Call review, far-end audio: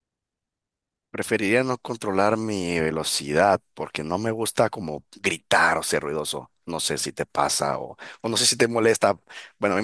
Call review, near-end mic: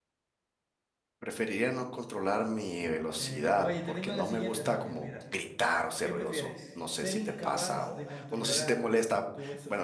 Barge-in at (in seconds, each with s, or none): 3.1 s